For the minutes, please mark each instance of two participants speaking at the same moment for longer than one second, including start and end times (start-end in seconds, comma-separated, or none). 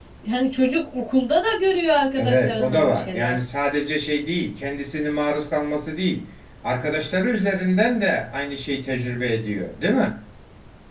2.1-3.4